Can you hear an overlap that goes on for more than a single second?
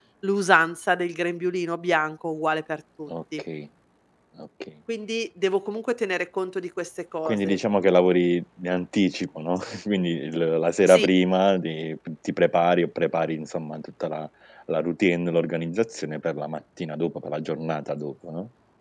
No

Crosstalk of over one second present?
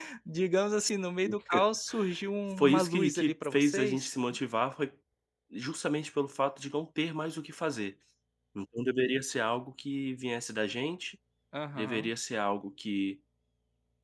Yes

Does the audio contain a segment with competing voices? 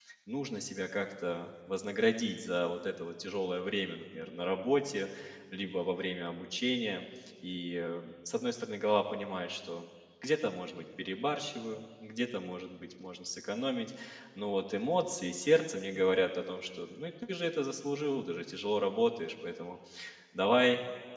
No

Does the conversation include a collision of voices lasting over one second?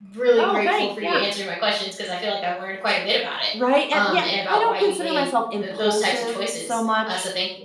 Yes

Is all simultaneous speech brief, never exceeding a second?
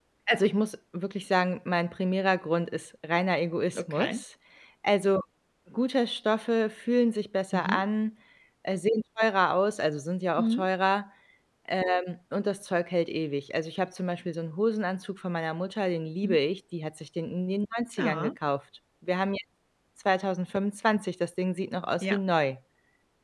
Yes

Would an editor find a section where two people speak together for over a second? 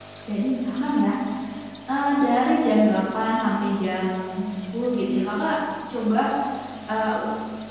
No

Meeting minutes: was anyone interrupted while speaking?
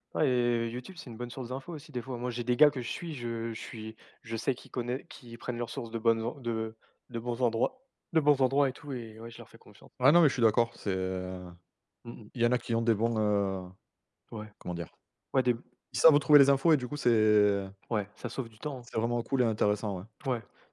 No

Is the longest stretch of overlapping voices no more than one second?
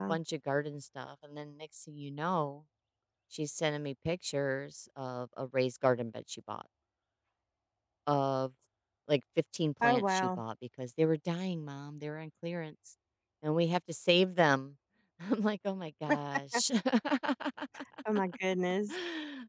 Yes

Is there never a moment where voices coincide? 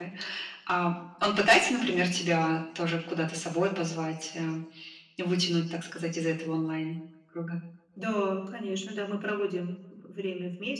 Yes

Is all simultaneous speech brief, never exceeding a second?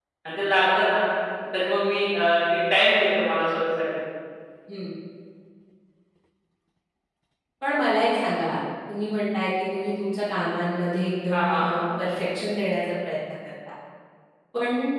Yes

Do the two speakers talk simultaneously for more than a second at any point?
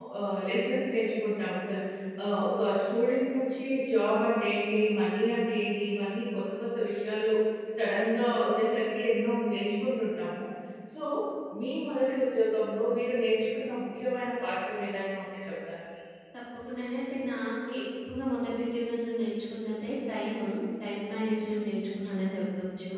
No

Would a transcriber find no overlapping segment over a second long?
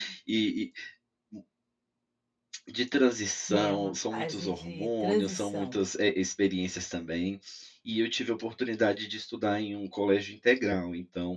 No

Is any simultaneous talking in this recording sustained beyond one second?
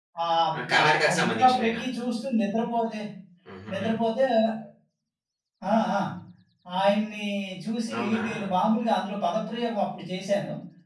Yes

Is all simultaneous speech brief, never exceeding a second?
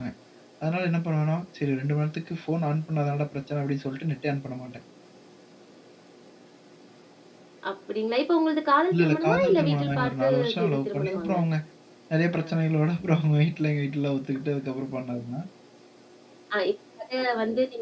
No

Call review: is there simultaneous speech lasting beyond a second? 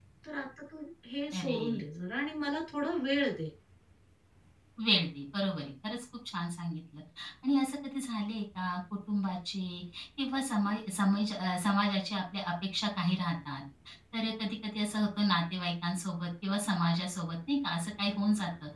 No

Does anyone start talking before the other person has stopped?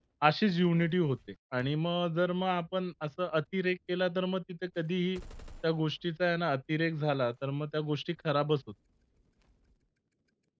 No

